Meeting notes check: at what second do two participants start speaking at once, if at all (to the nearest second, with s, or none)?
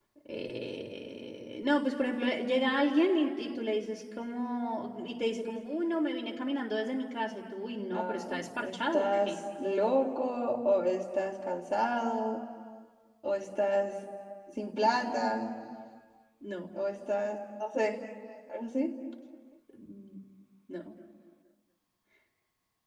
8 s